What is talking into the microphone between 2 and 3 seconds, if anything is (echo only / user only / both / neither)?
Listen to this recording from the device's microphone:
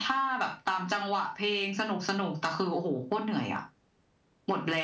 echo only